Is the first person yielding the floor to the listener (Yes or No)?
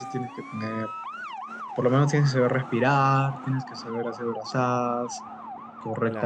Yes